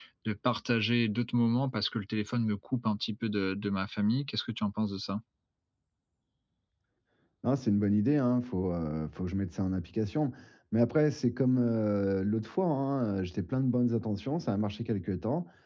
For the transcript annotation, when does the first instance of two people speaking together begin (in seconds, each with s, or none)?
none